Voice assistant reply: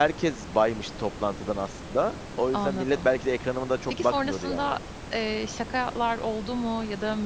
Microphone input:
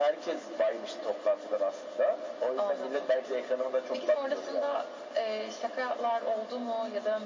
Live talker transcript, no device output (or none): none